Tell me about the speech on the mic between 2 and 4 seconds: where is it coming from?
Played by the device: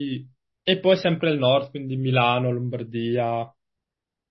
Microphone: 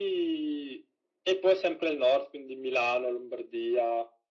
echo only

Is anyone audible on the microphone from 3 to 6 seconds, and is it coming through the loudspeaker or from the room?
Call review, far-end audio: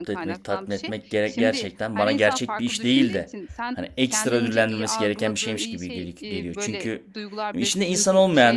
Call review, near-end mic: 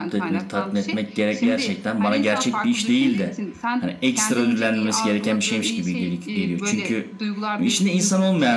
echo only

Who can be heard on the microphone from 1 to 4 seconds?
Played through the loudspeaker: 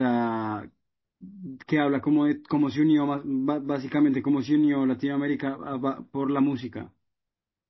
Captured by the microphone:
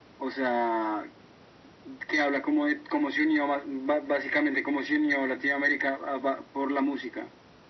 echo only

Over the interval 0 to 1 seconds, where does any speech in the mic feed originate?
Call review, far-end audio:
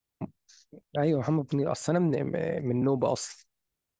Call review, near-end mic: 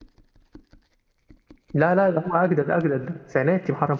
neither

